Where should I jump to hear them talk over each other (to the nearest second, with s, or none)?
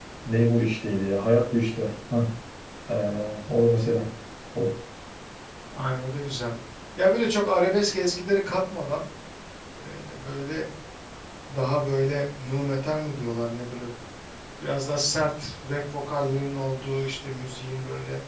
none